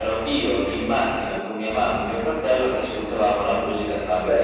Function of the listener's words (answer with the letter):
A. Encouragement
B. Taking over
B